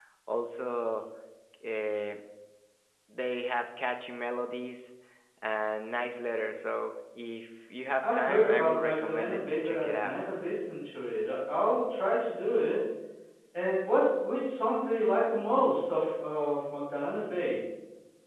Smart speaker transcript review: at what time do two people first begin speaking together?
8 s

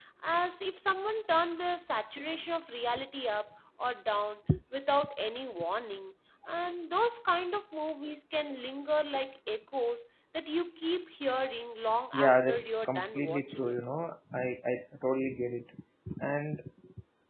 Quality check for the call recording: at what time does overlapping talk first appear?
12 s

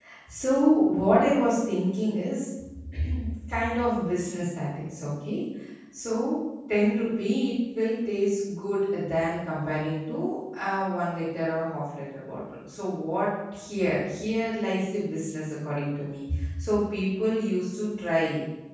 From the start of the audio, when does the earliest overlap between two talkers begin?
none

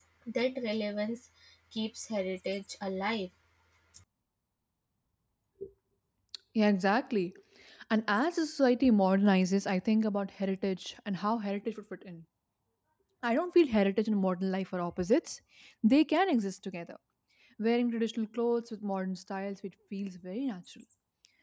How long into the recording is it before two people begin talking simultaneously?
none

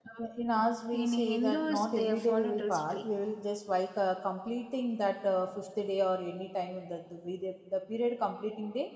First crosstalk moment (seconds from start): 1 s

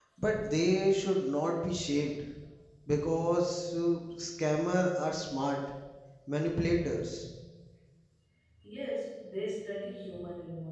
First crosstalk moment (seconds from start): none

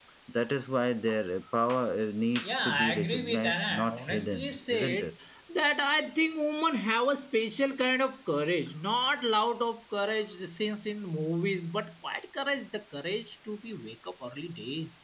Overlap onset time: 2 s

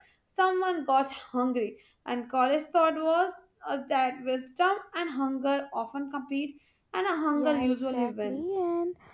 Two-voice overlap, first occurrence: 7 s

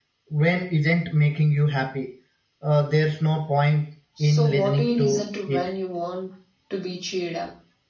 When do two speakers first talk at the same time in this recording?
4 s

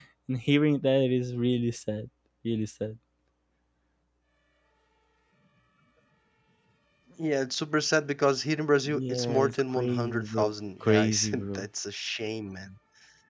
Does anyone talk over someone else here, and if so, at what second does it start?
9 s

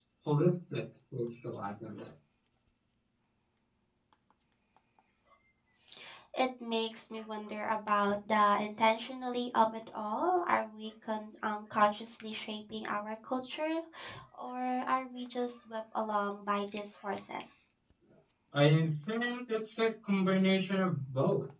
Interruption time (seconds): none

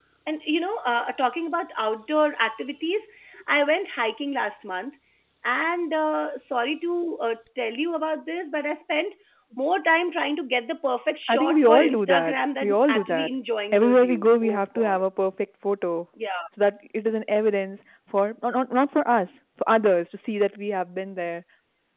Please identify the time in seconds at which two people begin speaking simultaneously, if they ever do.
11 s

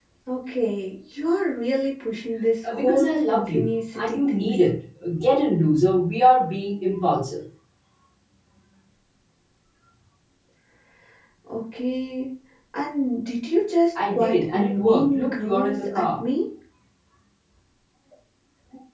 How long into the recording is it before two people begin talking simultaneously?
3 s

